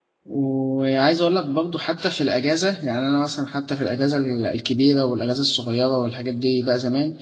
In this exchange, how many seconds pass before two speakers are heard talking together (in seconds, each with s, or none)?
none